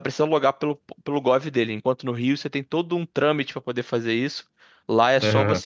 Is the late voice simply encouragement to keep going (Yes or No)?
Yes